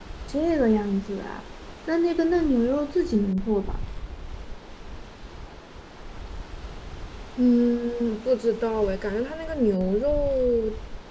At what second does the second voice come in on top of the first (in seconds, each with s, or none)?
none